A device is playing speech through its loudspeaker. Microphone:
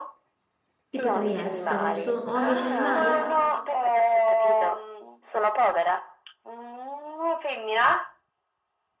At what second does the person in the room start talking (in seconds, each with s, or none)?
0.9 s